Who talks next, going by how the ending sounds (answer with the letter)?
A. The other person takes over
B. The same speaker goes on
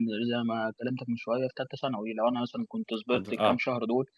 B